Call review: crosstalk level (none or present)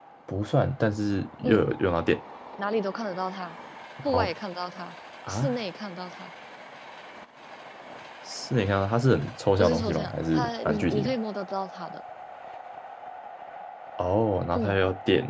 present